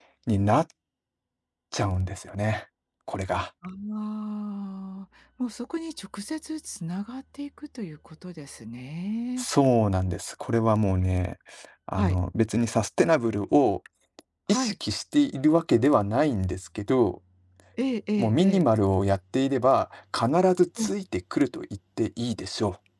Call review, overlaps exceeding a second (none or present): none